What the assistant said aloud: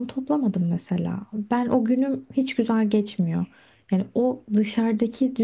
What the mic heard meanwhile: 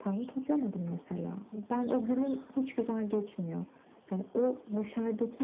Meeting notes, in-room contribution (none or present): none